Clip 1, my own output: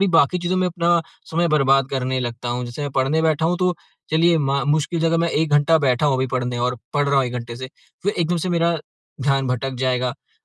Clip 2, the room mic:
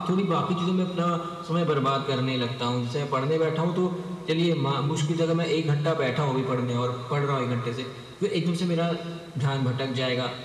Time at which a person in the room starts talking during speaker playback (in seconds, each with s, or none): none